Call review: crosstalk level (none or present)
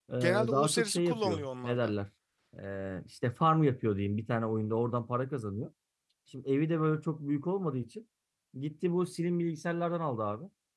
present